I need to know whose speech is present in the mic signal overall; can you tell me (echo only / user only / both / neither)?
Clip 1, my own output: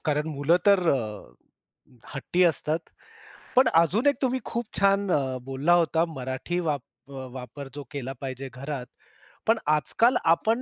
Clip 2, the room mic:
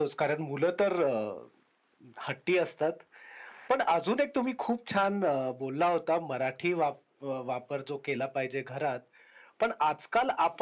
echo only